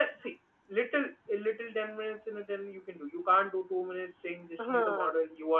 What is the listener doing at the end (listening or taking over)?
listening